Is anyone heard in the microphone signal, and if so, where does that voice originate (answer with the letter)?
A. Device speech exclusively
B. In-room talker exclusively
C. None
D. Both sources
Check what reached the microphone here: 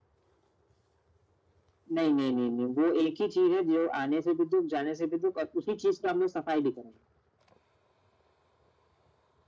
A